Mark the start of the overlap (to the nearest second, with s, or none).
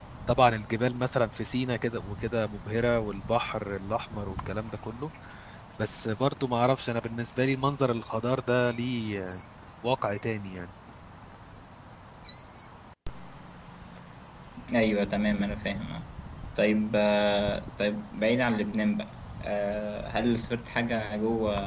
none